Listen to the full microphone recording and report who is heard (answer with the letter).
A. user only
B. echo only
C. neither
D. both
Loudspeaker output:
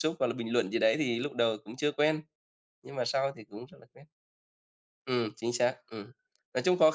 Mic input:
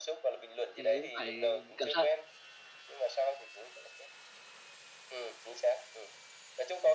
D